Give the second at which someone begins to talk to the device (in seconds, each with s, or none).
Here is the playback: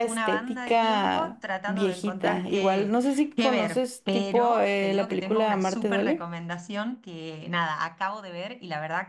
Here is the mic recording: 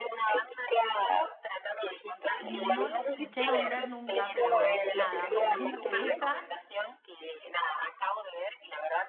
2.0 s